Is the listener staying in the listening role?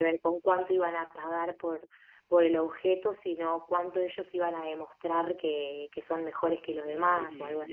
No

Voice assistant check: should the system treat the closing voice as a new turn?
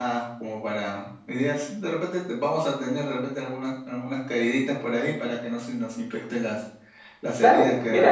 Yes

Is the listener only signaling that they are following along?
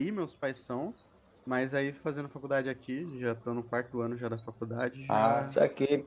No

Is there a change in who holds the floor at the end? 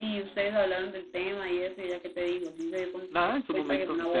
Yes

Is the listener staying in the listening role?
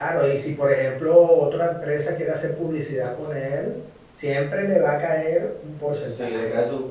No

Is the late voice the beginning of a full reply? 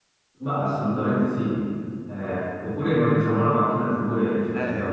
Yes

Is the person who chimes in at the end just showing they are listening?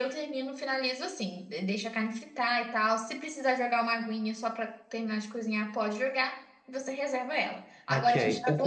No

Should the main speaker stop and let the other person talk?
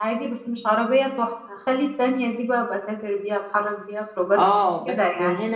Yes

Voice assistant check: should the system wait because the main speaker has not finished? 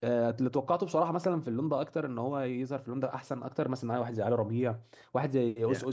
No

